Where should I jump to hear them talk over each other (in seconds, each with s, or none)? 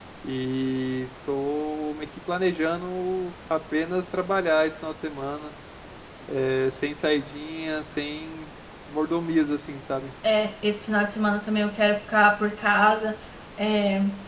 none